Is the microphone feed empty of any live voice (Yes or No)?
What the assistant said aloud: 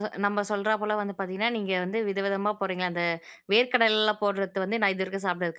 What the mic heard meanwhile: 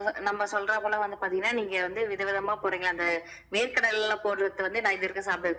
Yes